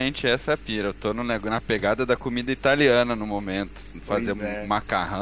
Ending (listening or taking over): listening